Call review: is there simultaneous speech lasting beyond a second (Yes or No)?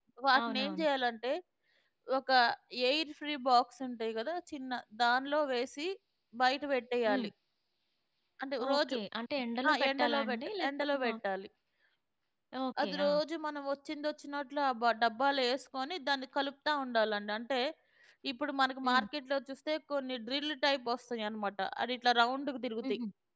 Yes